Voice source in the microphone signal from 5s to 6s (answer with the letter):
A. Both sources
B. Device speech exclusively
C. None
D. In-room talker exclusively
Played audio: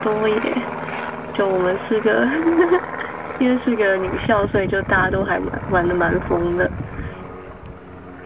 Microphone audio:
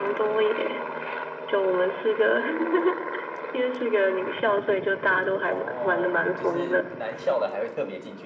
A